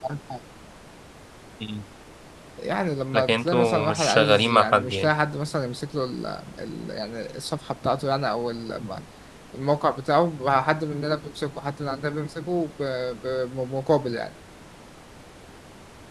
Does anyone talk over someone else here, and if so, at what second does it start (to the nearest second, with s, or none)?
3 s